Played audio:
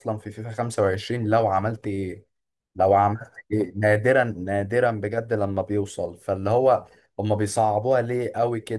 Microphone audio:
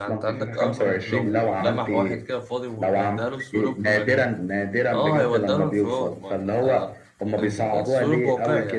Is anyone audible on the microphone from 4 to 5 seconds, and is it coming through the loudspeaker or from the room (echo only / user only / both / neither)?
both